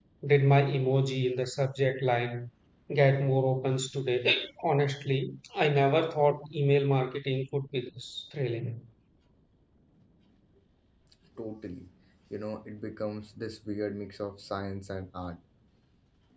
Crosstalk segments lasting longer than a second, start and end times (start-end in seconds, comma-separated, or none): none